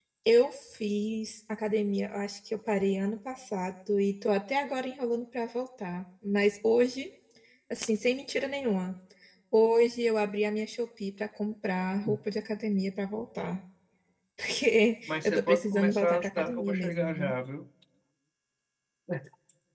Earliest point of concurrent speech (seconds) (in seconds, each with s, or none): 15.1 s